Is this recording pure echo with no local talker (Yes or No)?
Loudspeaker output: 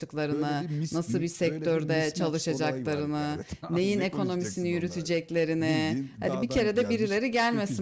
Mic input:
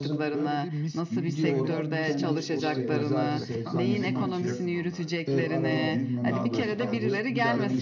No